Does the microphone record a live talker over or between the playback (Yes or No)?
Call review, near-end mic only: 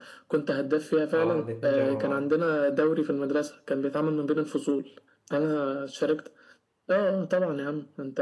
Yes